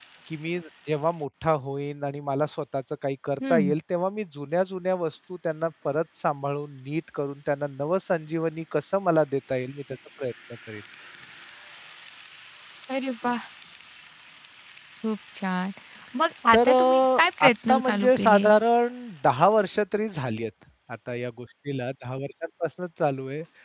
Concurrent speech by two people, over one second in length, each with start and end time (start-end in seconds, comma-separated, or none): 16.5-18.5